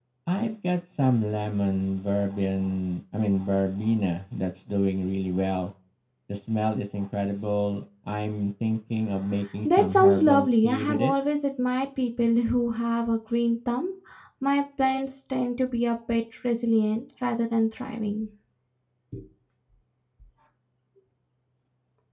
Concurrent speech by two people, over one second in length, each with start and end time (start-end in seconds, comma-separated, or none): 9.7-11.1